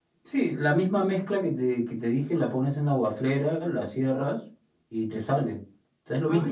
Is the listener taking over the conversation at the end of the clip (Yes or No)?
Yes